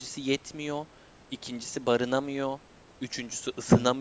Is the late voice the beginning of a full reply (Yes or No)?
No